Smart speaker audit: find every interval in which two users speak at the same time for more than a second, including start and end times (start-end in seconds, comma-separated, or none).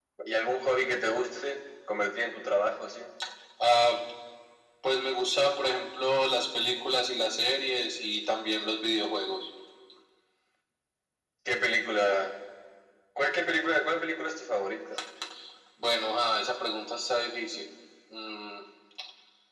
none